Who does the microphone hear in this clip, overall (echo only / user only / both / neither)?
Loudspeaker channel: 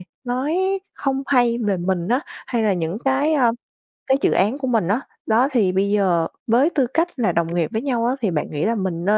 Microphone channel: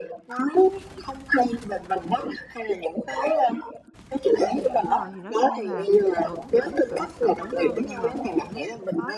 both